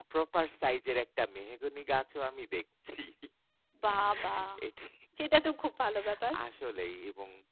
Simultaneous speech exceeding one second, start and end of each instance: none

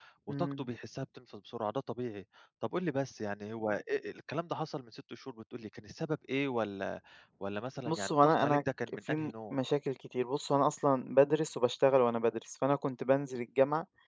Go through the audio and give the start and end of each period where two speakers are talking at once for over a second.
7.9-9.6

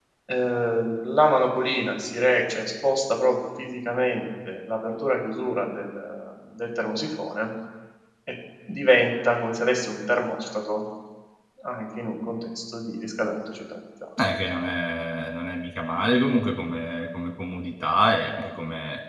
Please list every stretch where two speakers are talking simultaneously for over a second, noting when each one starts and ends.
none

